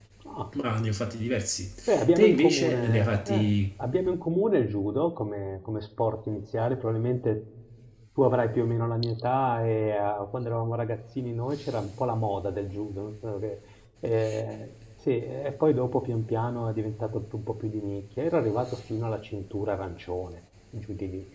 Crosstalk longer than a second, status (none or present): present